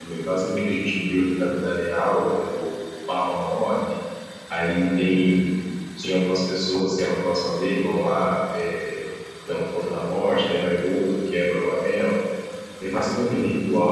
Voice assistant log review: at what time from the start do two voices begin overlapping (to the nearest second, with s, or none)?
none